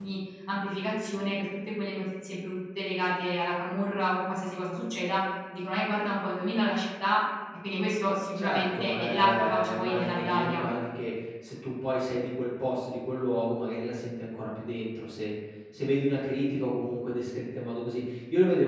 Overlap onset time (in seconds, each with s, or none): 8.3 s